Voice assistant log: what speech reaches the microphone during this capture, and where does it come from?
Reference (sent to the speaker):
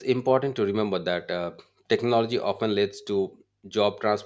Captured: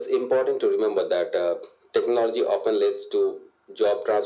echo only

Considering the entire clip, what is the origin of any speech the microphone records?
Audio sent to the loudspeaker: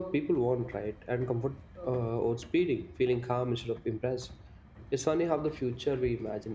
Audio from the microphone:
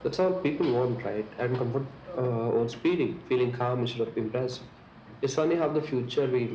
echo only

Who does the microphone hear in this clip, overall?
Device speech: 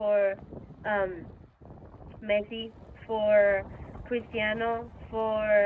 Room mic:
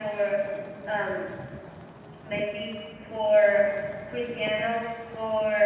echo only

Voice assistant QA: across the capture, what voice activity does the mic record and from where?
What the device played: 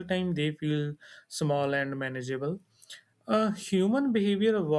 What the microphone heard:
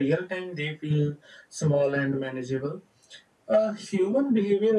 echo only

